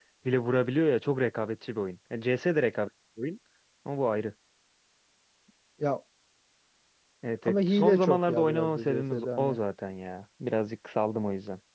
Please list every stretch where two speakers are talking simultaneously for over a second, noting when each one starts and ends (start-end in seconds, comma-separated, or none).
7.4-9.6